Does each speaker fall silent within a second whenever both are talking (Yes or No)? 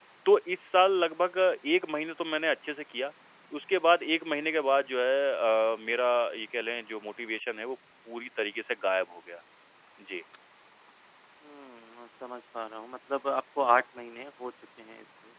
Yes